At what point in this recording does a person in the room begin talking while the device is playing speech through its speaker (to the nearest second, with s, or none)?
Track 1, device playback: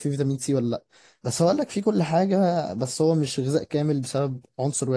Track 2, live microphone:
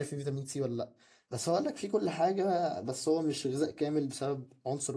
none